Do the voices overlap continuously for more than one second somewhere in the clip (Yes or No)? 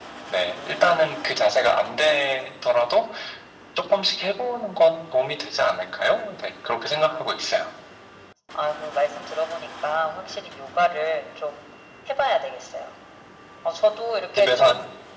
No